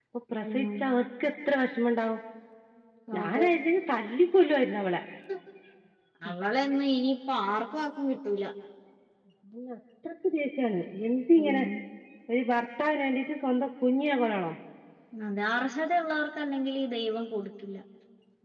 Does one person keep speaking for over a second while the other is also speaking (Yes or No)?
No